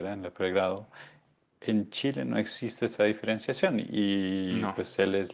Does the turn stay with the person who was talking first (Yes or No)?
Yes